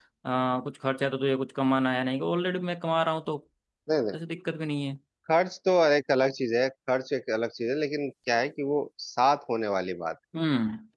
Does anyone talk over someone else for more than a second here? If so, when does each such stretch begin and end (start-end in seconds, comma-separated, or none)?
none